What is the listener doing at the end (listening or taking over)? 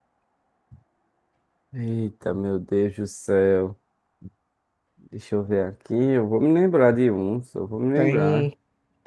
taking over